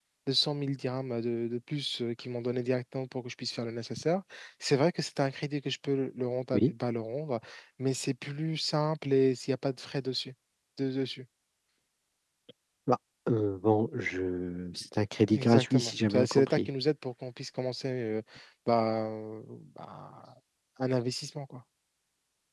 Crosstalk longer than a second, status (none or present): present